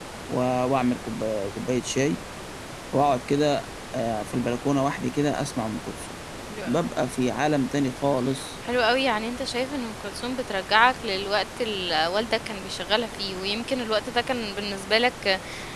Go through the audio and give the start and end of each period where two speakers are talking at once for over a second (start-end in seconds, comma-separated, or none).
none